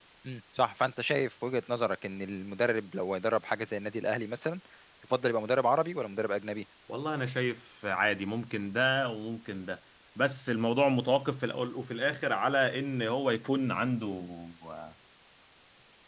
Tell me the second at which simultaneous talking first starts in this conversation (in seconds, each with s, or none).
none